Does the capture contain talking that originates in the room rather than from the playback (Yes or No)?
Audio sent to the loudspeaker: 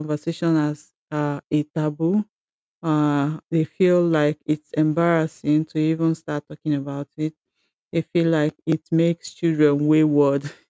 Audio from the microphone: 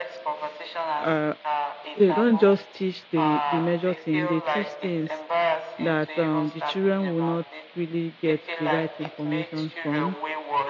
Yes